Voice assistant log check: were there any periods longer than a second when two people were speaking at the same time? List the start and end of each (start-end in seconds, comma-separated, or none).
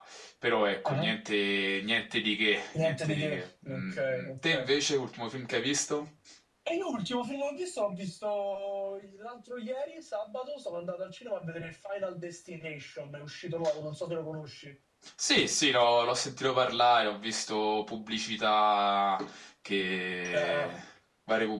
2.8-4.7